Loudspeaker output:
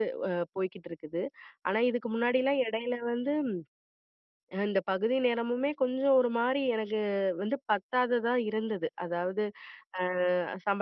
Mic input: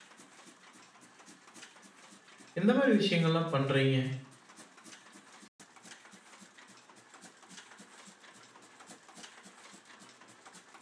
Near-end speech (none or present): present